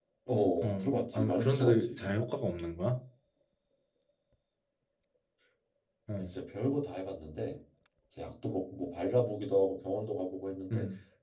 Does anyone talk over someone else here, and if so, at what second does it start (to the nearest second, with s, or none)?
1 s